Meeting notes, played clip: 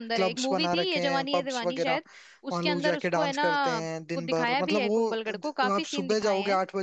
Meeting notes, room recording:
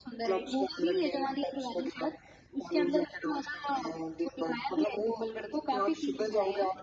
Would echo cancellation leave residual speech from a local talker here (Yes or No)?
No